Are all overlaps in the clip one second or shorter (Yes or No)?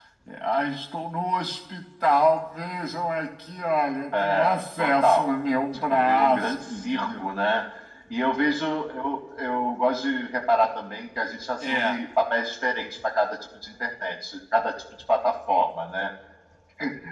No